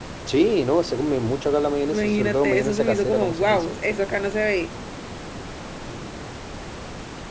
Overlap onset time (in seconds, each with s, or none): 1.9 s